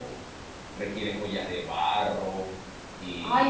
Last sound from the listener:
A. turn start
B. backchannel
A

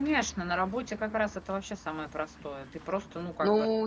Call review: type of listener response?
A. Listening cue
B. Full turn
B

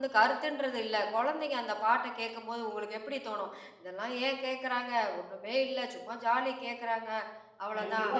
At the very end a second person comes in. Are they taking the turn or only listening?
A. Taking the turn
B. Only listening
A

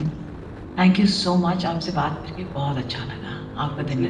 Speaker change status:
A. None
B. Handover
B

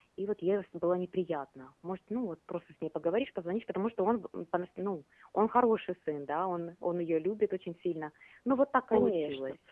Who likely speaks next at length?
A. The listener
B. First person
A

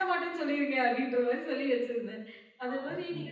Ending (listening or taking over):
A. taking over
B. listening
B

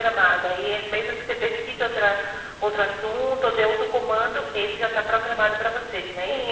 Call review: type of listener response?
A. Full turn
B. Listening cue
A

